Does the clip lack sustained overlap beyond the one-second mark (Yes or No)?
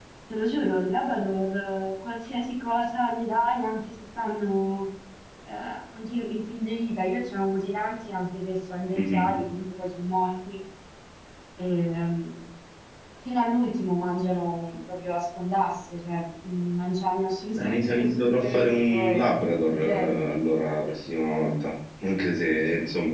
No